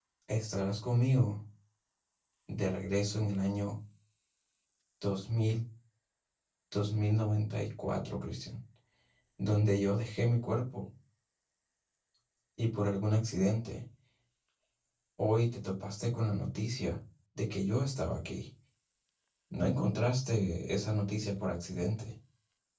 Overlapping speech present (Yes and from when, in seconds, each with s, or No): No